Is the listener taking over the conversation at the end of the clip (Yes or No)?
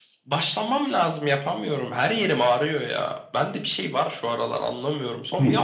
No